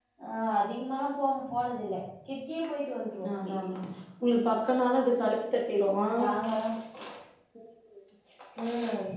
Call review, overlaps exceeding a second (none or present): none